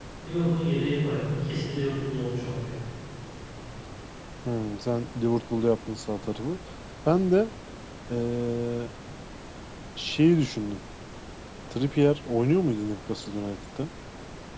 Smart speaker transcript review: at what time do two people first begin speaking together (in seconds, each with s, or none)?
none